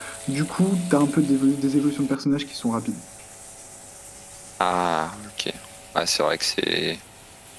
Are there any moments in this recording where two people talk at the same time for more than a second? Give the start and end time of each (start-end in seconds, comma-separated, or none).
none